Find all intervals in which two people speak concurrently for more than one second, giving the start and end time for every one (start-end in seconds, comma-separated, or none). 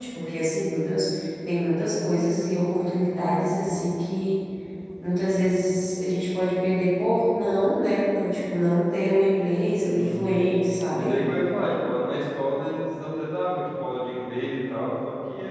none